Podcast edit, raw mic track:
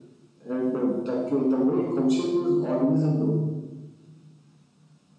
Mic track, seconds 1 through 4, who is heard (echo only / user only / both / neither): echo only